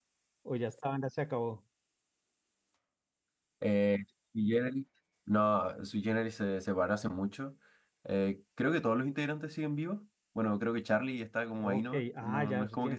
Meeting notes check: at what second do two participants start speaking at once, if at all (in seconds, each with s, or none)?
11.6 s